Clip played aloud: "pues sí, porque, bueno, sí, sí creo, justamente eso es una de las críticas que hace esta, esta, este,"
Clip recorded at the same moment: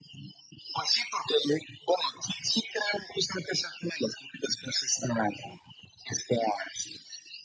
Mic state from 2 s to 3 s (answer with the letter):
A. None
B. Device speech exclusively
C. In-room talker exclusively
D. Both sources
B